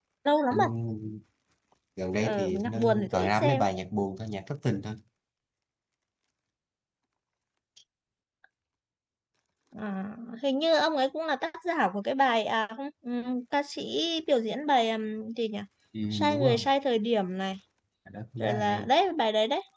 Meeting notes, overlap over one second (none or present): present